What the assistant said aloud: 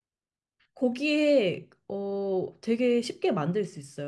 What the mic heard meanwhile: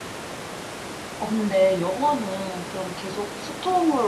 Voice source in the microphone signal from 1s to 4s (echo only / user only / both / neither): user only